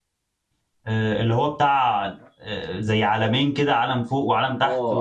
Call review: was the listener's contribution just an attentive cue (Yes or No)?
No